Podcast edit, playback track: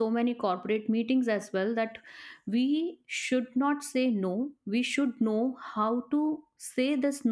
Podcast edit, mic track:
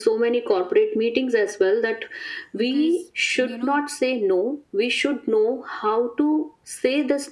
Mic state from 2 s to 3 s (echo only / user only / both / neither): both